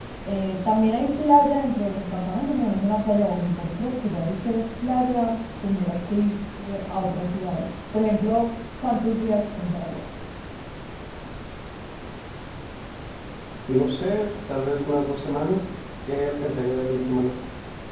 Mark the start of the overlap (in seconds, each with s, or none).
none